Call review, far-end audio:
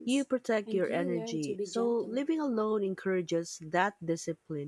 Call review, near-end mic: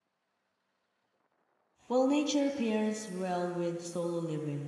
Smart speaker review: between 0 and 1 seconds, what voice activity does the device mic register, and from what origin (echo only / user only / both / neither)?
neither